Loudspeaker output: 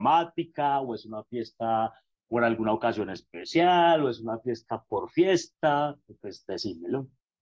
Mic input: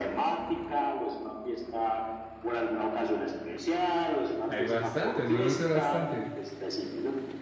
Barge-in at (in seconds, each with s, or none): 4.5 s